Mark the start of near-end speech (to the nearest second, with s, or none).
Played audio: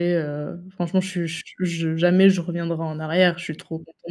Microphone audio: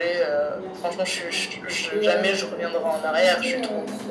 1 s